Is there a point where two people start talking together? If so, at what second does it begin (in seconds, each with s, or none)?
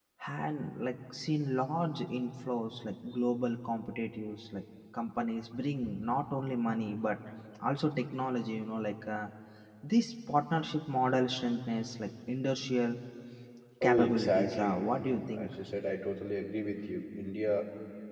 13.8 s